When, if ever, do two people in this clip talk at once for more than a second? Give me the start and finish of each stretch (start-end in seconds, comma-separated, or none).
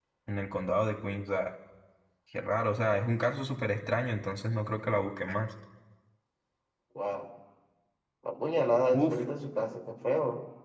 none